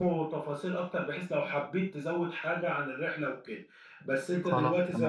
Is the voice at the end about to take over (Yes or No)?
No